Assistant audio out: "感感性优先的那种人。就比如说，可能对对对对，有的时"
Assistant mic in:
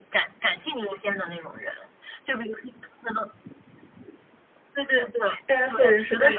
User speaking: Yes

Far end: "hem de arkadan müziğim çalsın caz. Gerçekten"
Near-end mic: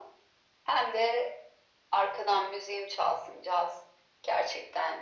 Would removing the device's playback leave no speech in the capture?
Yes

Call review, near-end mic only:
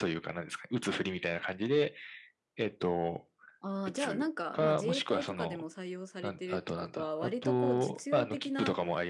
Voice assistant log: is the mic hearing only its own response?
Yes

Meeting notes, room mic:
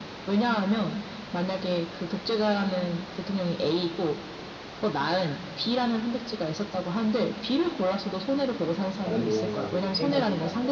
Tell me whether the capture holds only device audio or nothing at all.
No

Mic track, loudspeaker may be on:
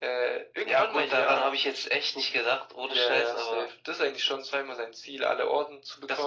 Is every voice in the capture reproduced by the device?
Yes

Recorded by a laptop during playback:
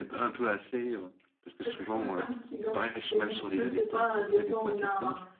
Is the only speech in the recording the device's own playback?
No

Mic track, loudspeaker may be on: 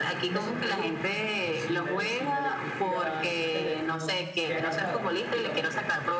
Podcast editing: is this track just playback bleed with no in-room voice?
No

